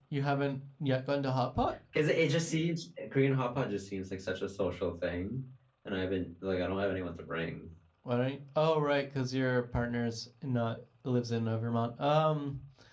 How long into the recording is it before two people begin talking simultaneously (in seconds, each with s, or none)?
none